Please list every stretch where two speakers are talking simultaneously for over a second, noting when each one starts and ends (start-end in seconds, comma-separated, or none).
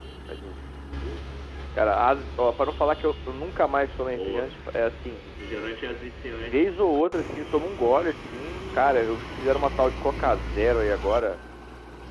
none